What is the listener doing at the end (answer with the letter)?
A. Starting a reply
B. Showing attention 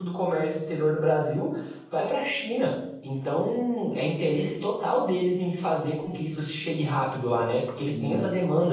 B